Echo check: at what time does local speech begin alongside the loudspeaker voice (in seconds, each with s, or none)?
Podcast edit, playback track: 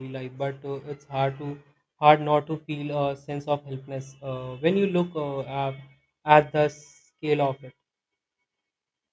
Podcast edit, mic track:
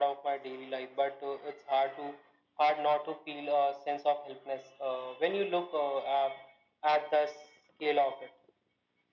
none